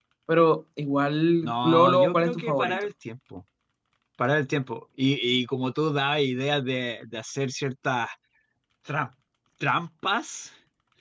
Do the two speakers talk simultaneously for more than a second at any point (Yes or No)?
Yes